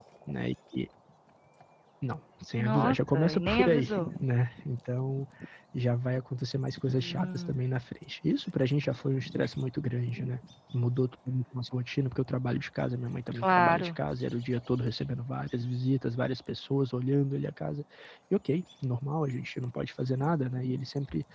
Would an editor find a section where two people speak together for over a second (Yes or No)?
Yes